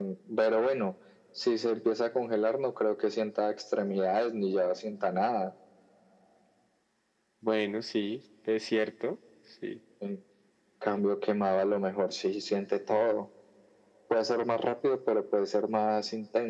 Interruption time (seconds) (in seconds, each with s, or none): none